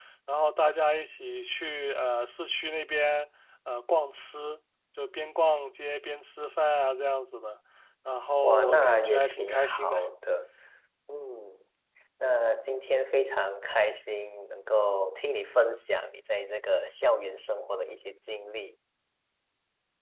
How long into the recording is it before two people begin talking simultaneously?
8.4 s

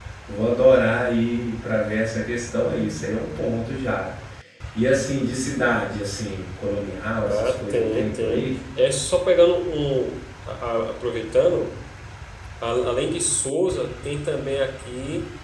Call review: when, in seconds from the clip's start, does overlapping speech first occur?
7.2 s

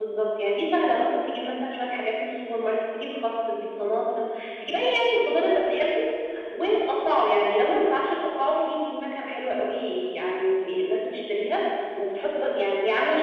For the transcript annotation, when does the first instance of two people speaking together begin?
none

